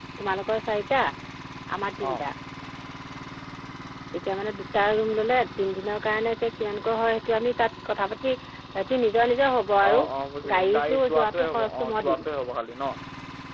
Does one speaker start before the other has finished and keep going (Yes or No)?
Yes